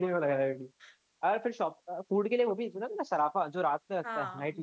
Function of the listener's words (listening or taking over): taking over